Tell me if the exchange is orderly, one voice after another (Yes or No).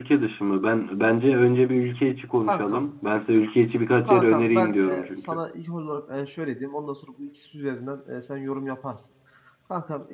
No